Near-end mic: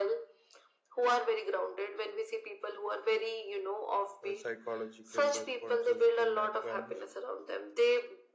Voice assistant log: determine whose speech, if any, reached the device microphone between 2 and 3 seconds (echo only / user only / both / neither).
echo only